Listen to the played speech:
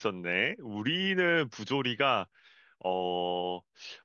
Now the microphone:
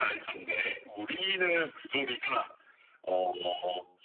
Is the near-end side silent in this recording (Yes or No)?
Yes